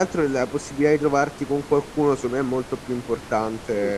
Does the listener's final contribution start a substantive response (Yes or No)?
Yes